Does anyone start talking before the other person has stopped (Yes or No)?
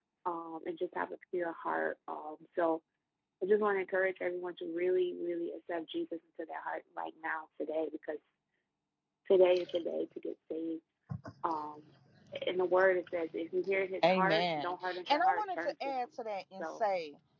Yes